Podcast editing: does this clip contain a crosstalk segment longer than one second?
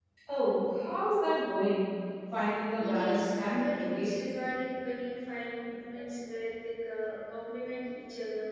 Yes, from 2.8 s

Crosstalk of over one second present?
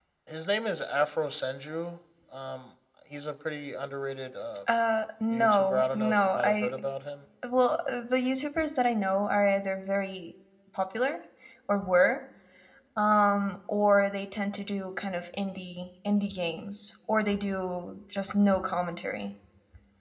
Yes, from 5.3 s

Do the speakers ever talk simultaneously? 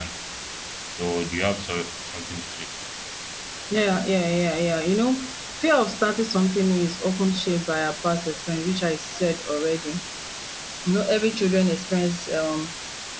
No

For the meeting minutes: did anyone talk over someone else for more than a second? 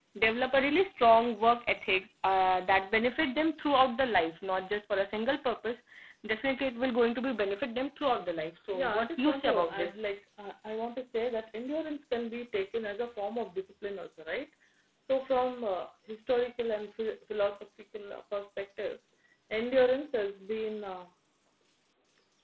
Yes, from 8.7 s

